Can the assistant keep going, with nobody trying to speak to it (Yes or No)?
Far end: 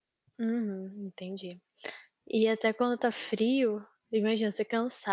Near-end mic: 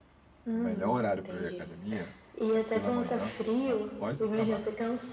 No